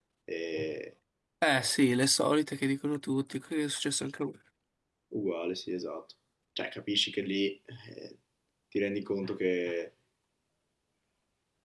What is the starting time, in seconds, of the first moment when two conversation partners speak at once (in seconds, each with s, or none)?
none